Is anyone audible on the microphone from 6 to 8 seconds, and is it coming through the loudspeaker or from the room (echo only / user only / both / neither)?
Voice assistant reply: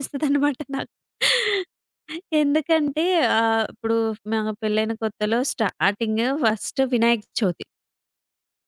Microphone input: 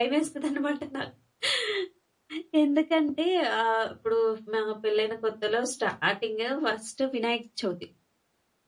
echo only